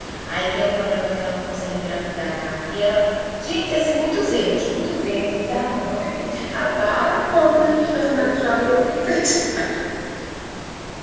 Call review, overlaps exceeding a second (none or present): present